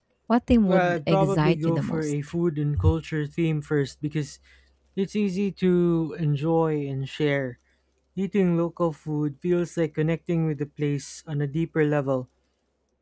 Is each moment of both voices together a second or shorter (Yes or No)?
No